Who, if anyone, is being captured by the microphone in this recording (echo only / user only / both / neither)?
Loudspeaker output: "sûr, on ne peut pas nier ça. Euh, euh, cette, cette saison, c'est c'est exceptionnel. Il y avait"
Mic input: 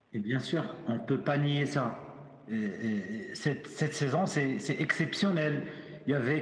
echo only